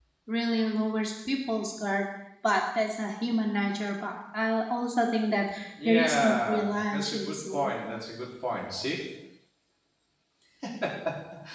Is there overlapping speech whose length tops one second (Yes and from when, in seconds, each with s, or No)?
Yes, from 5.8 s